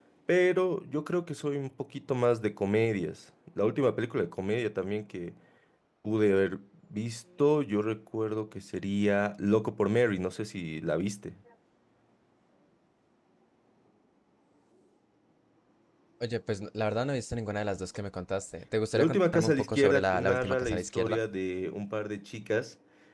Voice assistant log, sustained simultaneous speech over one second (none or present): present